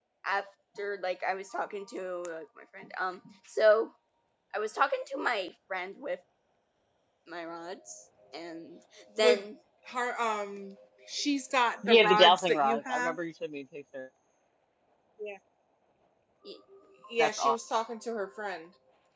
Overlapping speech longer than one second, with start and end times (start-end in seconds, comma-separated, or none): 11.8-13.2